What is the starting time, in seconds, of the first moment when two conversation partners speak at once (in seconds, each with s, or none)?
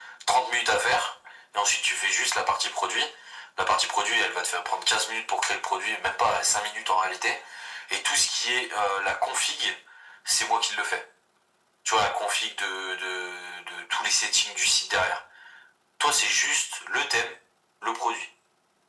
none